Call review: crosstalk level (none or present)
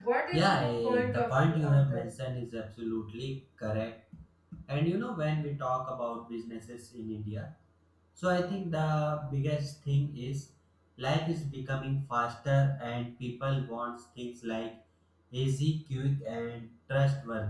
present